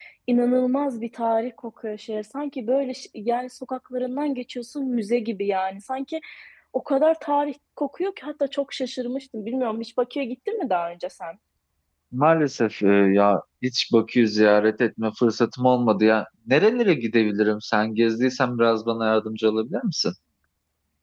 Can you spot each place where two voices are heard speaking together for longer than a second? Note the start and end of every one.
none

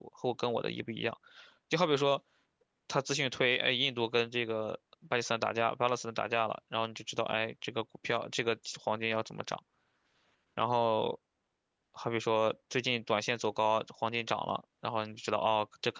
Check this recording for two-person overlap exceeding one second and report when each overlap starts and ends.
none

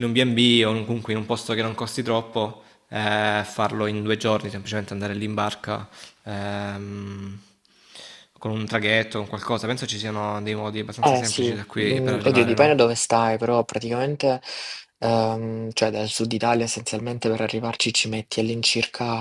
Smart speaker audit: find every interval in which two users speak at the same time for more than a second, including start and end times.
11.0-12.7

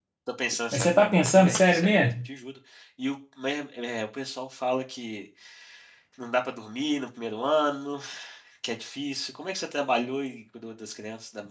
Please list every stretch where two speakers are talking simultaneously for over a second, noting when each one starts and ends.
0.7-2.3

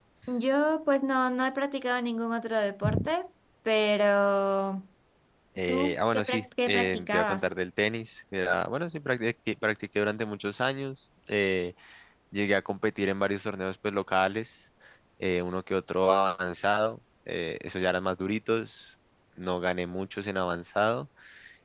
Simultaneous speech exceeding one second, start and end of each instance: 5.7-7.5

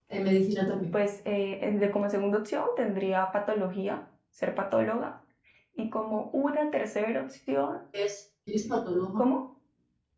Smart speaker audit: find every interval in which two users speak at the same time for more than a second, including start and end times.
none

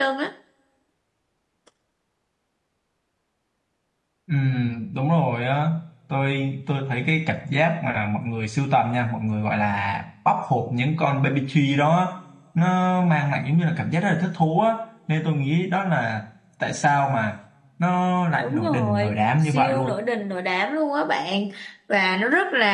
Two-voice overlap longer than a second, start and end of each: 18.4-20.0

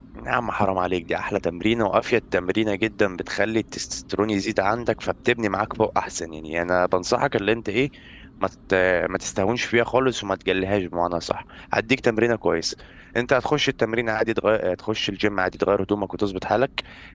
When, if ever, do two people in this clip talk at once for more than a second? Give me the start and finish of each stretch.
none

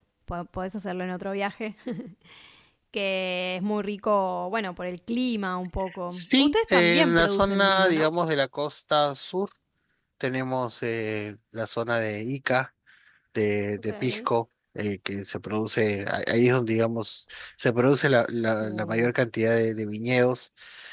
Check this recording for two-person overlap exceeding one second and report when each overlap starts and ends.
6.1-8.1

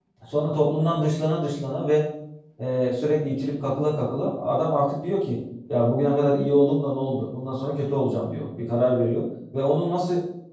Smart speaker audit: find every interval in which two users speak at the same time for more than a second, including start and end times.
none

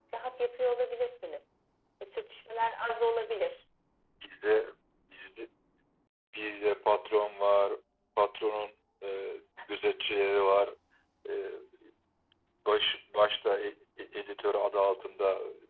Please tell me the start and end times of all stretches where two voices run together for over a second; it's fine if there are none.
none

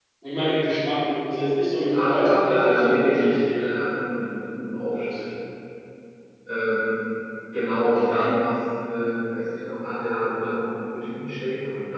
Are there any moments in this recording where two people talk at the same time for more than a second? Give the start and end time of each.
1.9-3.7

